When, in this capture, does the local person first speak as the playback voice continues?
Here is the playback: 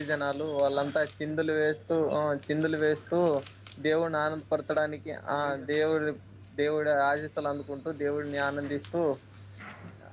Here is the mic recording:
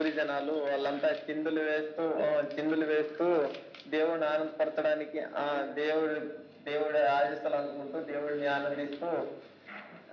none

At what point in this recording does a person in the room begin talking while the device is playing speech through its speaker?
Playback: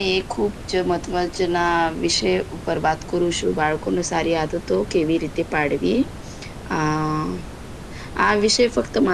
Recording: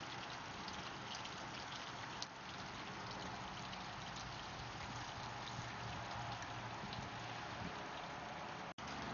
none

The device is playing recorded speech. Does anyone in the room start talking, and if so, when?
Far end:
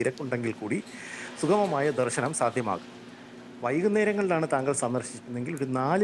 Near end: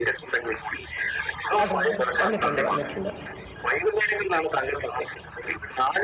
2 s

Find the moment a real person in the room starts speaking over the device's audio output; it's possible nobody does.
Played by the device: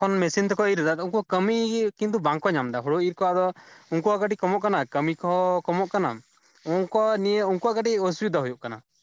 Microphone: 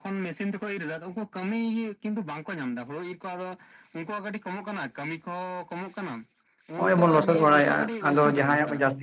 7 s

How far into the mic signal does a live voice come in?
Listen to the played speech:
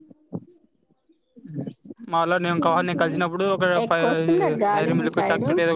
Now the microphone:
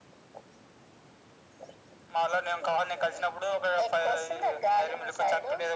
none

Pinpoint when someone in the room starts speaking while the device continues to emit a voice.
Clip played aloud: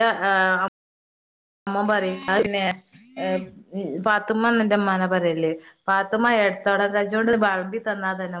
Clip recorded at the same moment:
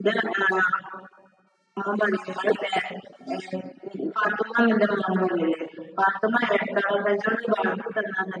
none

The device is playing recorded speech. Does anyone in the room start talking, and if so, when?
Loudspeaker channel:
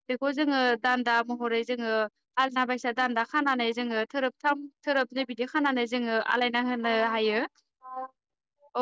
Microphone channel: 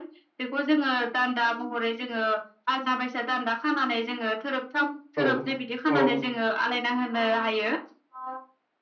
5 s

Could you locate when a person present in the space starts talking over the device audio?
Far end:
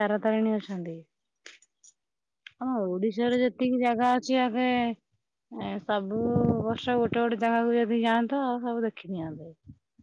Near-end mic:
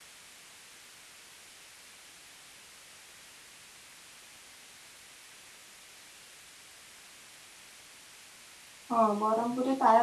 9 s

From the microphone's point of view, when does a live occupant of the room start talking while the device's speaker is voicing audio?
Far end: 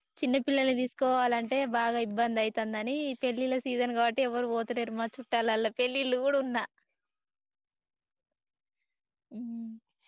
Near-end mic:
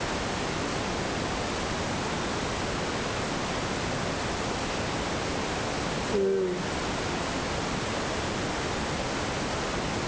6 s

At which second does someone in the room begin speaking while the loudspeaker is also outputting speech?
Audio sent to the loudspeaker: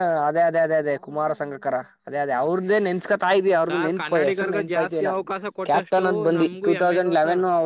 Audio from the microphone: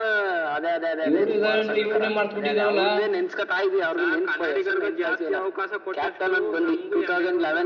1 s

